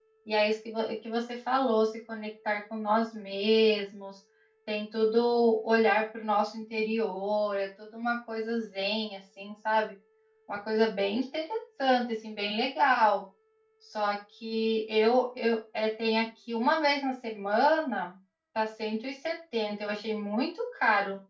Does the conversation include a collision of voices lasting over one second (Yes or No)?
No